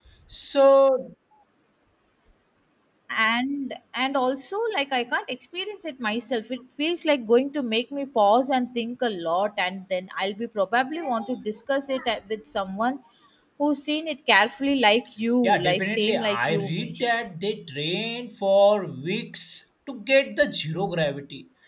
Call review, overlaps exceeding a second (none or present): present